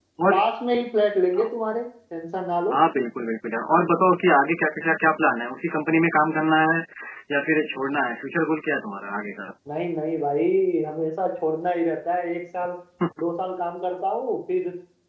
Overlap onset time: none

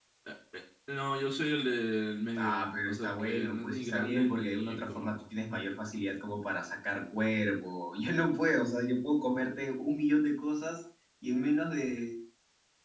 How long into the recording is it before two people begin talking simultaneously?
2.4 s

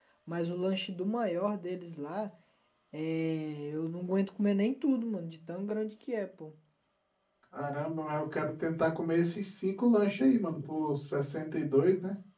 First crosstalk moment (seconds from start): none

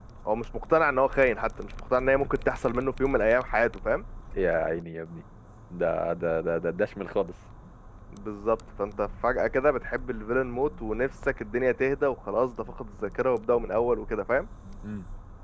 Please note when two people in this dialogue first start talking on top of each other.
none

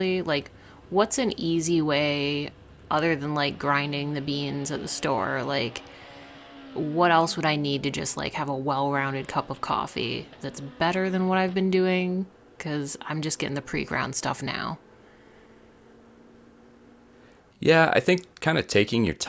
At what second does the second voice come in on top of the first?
none

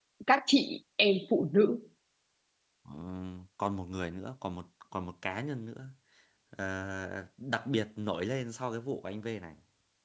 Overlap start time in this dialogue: none

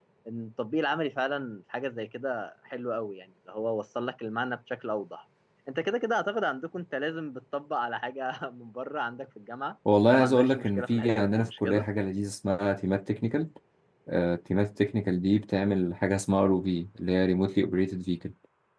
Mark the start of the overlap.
10.1 s

